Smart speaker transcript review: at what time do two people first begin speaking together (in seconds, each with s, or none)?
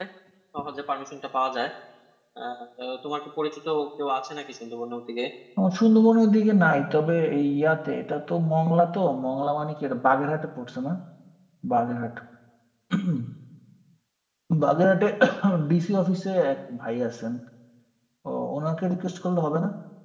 none